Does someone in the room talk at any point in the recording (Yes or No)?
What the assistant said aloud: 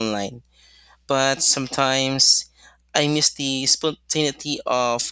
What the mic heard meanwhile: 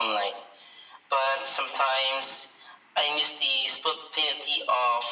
No